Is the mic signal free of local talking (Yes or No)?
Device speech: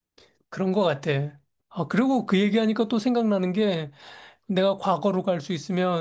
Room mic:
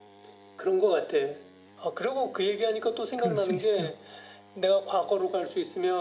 No